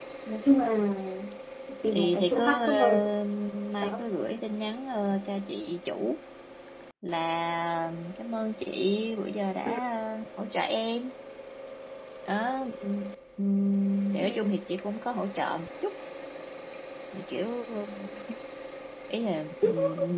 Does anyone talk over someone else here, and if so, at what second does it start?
2 s

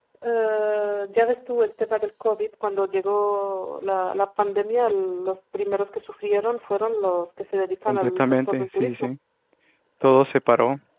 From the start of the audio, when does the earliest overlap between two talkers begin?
8 s

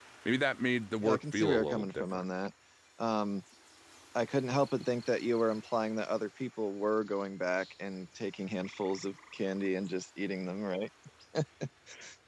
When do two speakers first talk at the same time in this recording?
1 s

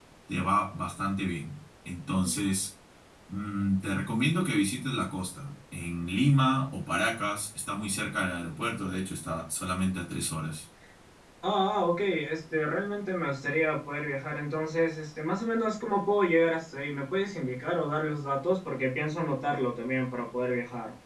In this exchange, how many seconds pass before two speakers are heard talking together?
none

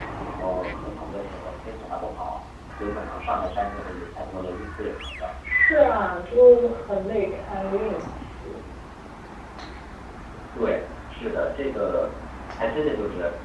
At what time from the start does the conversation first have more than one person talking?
none

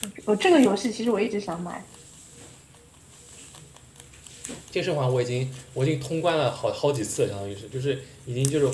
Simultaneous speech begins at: none

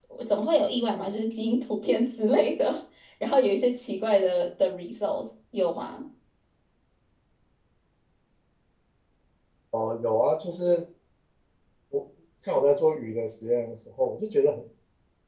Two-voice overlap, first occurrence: none

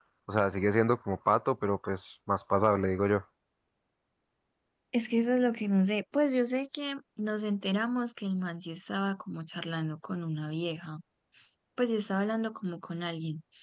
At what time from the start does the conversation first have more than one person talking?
none

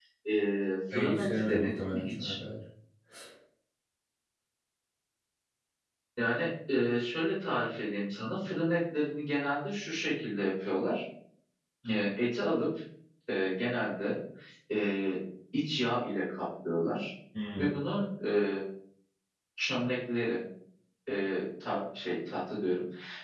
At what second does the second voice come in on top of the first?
1 s

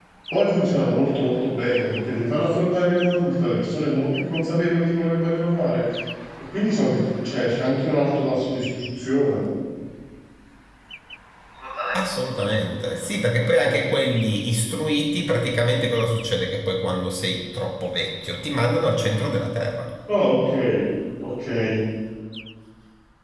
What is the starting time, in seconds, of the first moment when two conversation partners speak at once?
none

